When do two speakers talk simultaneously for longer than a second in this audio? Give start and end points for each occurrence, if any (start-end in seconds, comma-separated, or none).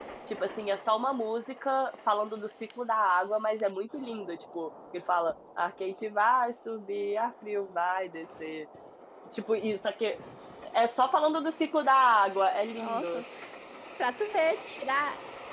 none